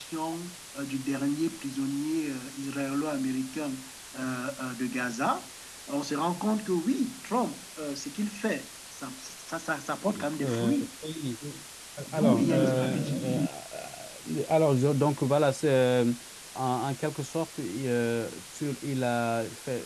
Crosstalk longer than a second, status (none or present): present